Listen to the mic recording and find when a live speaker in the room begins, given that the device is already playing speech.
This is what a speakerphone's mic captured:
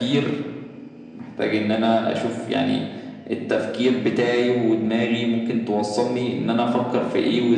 none

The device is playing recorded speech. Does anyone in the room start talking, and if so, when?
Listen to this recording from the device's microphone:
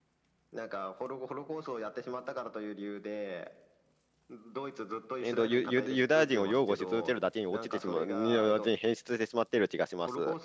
5.2 s

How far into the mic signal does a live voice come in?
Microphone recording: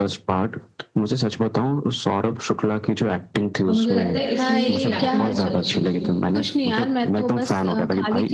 3.7 s

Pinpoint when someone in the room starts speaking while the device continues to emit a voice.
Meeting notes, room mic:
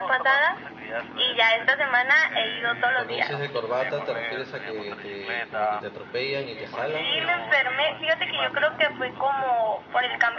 2.6 s

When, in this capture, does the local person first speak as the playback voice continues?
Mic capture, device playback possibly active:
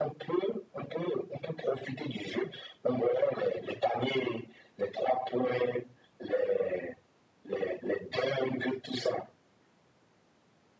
none

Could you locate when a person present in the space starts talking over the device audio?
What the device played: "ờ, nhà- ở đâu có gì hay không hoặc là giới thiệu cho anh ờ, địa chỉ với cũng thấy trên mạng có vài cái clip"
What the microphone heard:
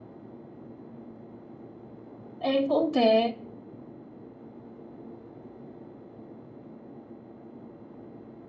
2.4 s

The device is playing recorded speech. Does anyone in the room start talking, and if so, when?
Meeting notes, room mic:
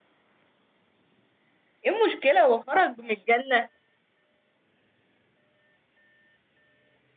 1.8 s

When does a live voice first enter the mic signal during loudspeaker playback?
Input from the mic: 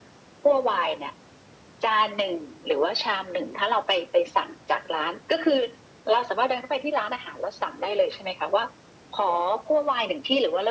none

